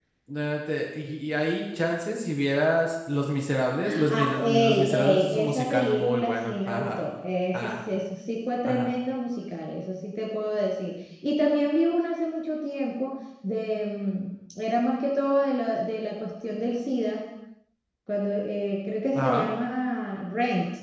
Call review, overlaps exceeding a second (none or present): present